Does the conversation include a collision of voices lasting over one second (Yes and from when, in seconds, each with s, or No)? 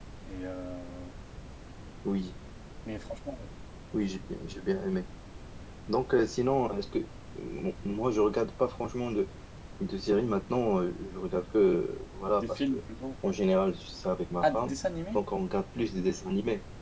No